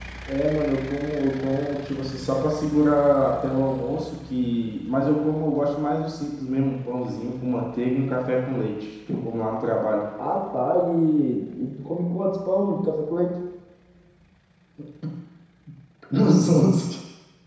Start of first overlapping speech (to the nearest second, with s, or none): none